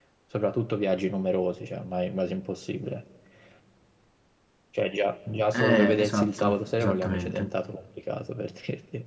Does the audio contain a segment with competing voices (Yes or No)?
Yes